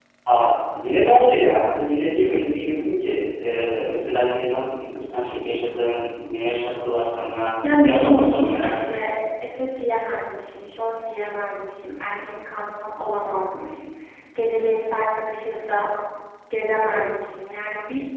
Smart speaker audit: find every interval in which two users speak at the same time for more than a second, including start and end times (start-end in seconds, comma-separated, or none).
7.8-9.0